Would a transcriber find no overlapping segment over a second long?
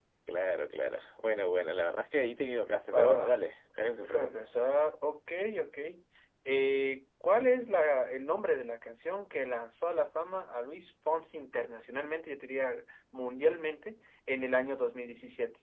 Yes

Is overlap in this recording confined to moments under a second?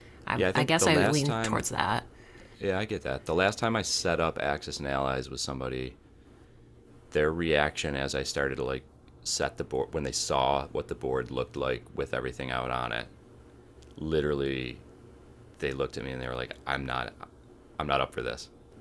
No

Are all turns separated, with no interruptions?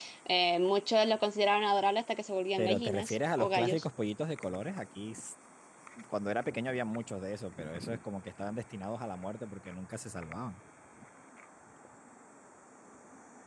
No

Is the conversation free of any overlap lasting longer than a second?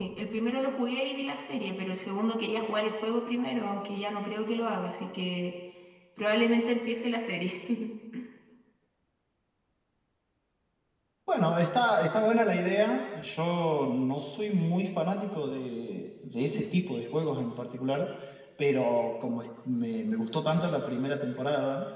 Yes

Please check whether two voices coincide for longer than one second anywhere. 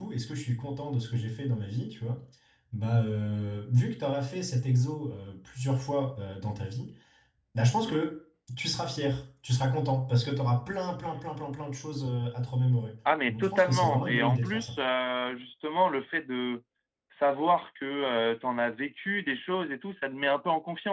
Yes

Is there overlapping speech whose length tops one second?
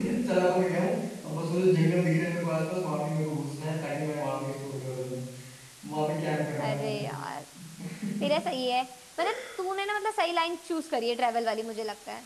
No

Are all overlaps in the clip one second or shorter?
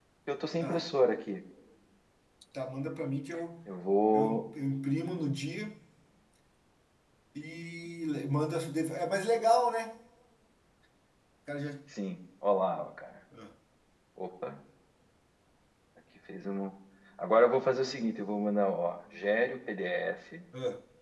Yes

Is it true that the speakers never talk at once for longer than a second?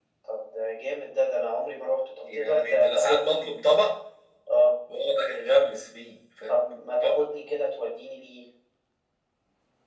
No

